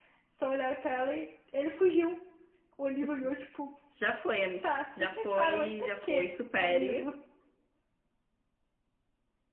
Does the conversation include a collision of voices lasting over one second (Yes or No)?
Yes